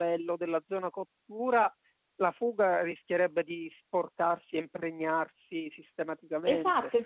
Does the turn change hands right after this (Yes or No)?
Yes